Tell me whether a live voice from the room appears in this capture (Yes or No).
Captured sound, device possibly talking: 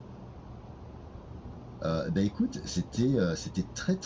Yes